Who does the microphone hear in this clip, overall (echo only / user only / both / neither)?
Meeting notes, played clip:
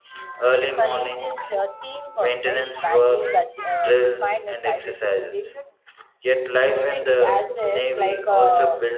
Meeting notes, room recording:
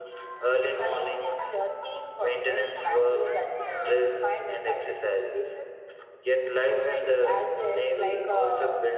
echo only